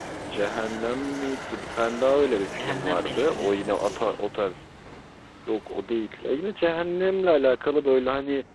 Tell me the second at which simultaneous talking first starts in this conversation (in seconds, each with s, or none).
2.6 s